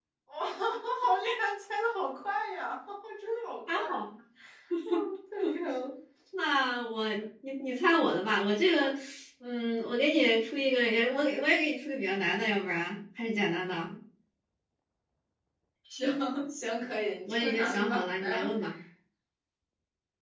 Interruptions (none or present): present